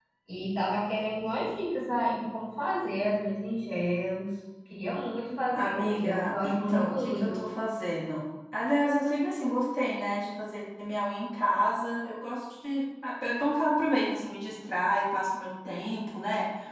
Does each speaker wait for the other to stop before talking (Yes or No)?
No